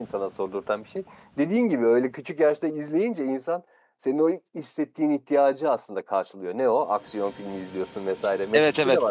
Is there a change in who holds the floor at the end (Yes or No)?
Yes